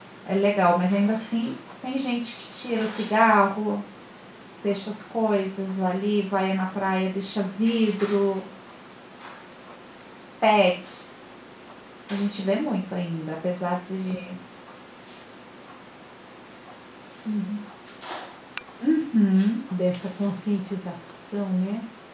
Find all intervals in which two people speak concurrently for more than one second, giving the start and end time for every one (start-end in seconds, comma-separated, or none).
none